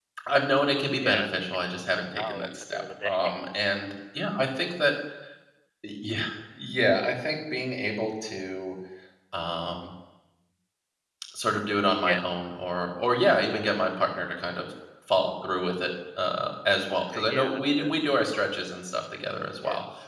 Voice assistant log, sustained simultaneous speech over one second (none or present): present